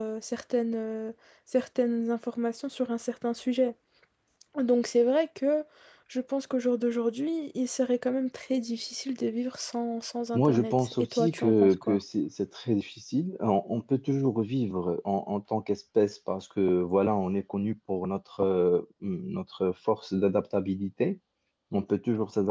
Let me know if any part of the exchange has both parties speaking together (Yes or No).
Yes